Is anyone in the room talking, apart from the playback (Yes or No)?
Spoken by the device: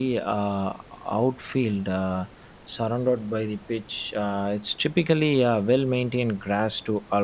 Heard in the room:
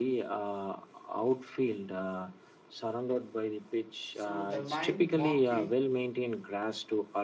Yes